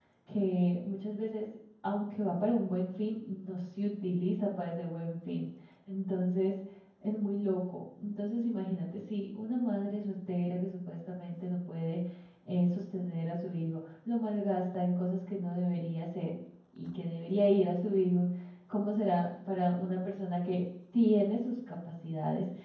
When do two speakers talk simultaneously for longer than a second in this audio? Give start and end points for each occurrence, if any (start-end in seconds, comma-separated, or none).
none